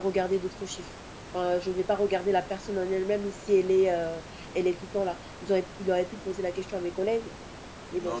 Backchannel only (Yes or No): No